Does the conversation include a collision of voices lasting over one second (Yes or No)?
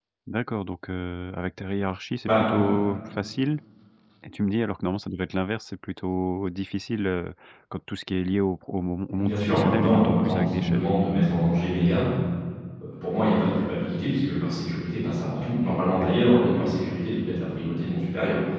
Yes